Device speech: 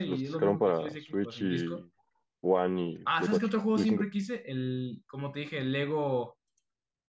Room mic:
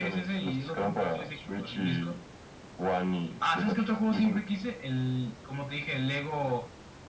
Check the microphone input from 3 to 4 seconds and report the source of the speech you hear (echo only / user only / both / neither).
echo only